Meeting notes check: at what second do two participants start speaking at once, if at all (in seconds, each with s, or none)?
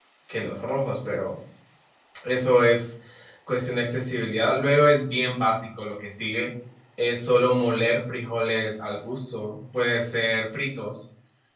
none